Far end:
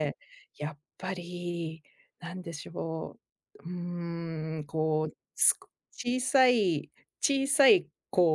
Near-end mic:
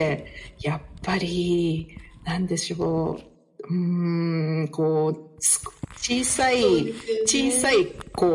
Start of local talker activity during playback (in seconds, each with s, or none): 6.5 s